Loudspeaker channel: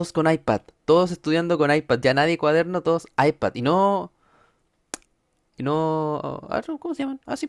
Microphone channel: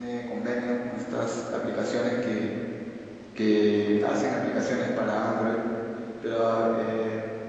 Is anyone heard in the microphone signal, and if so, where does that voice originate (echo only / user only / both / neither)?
user only